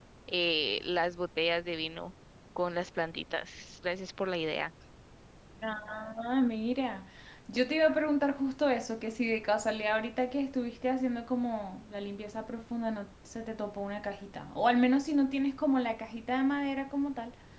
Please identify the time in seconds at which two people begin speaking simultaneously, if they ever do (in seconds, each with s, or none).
none